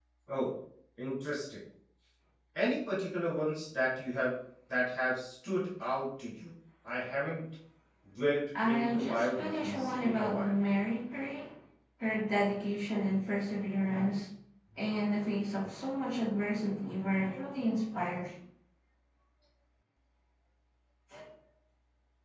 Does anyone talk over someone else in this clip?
Yes, from 8.6 s

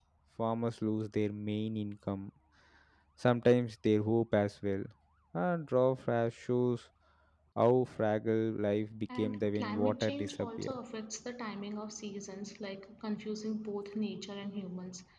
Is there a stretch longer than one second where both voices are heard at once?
Yes, from 9.1 s

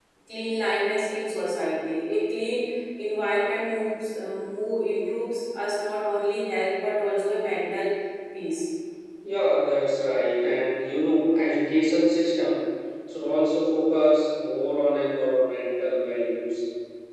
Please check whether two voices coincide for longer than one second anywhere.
No

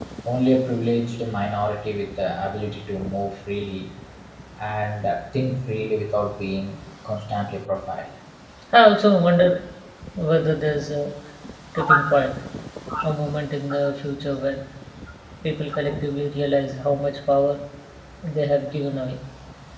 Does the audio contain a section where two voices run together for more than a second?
No

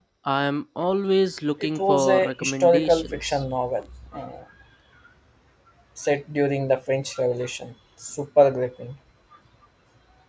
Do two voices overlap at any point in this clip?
Yes, from 1.8 s

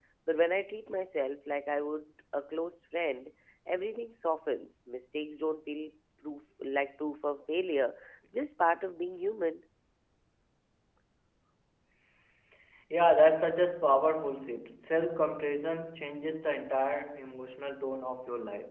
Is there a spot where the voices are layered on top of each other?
No

